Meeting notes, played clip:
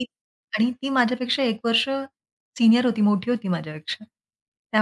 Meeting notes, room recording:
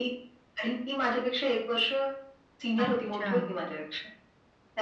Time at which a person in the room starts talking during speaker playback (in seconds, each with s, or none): 2.8 s